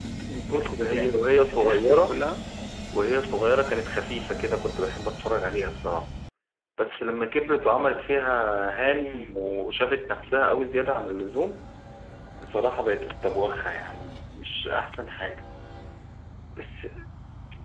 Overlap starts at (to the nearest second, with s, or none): 1 s